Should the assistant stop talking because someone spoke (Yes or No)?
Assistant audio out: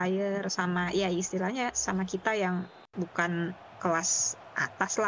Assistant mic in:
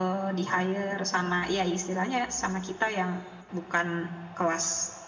No